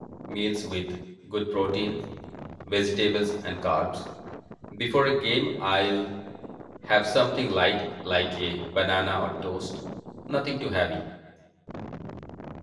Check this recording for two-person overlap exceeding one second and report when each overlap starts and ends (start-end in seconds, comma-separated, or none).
none